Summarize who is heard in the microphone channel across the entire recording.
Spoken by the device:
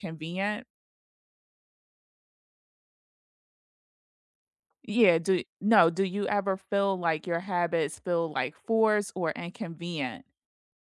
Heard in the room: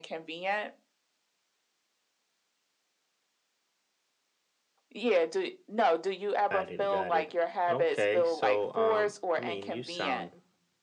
both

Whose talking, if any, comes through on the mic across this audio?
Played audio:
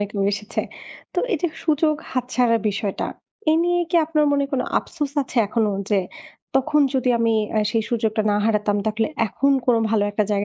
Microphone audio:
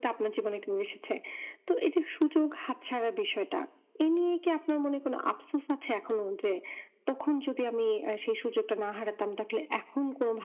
echo only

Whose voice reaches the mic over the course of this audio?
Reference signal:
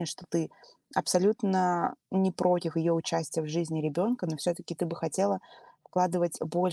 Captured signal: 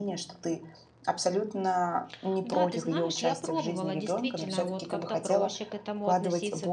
both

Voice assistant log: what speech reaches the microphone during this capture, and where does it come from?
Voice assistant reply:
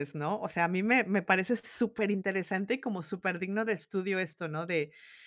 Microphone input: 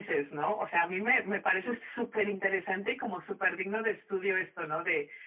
both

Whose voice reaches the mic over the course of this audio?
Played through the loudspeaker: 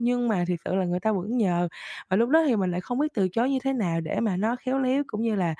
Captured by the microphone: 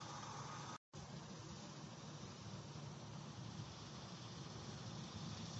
neither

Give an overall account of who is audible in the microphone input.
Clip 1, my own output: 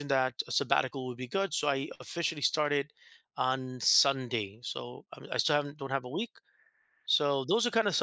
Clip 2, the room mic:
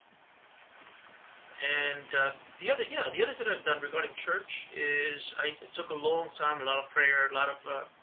user only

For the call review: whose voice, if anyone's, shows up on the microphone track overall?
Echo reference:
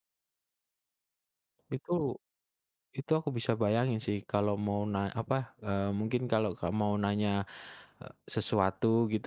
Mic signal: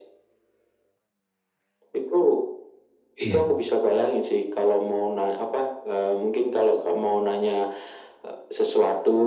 both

